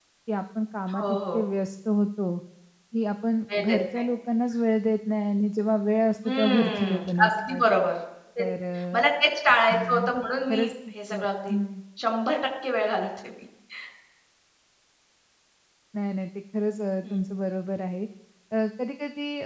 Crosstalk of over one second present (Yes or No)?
Yes